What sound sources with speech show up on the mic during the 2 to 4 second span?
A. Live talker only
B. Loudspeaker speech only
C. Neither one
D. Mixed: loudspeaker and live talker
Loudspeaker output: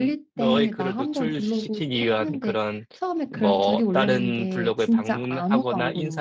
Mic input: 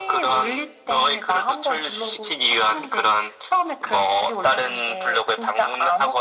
B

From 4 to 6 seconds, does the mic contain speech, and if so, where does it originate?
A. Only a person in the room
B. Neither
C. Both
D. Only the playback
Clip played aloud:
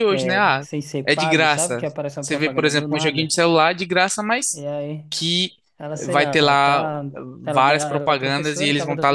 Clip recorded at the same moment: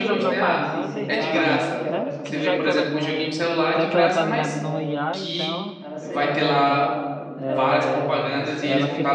C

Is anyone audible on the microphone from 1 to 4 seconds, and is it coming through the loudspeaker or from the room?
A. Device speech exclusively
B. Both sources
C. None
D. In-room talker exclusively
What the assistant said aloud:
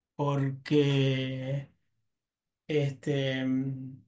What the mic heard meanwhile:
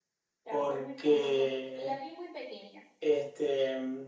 B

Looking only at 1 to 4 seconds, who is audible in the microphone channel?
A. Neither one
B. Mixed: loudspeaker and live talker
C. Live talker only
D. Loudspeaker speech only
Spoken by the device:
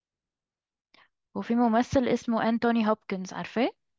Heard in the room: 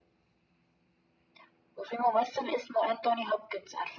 D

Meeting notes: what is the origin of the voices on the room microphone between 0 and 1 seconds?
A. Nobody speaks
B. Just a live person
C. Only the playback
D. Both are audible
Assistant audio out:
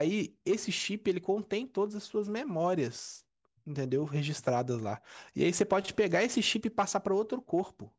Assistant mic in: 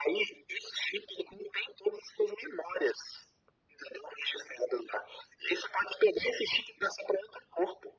C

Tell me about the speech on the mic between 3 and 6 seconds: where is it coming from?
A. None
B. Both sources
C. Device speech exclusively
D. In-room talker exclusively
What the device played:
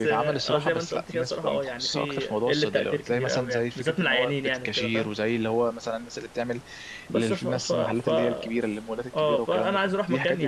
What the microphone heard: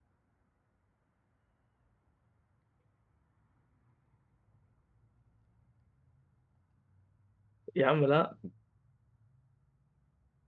A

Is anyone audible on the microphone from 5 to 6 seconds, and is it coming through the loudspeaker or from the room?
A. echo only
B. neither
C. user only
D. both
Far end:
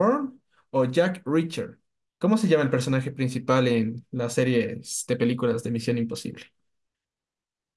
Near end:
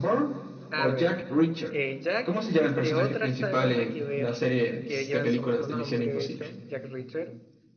D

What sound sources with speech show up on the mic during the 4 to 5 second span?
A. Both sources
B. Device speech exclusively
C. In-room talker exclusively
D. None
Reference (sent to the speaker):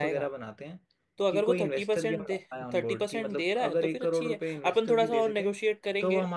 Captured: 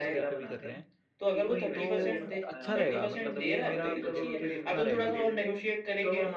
A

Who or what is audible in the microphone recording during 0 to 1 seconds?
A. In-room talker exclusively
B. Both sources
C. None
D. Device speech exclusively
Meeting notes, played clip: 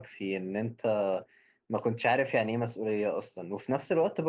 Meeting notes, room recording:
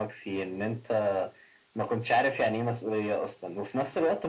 D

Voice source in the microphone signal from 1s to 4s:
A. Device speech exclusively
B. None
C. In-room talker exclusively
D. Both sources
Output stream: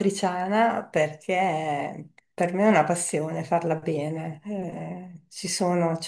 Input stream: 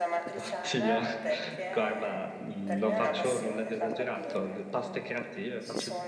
D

